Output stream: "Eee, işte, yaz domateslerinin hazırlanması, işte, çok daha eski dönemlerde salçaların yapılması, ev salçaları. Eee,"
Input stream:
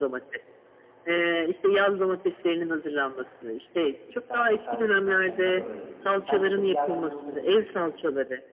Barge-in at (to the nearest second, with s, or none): 4 s